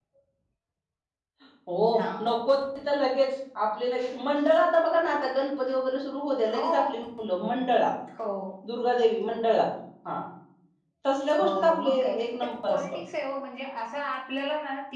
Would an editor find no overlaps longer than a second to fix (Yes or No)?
No